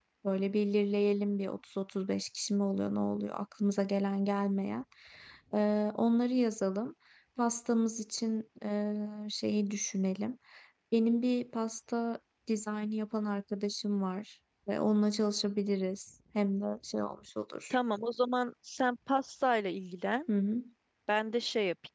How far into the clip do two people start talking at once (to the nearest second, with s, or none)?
none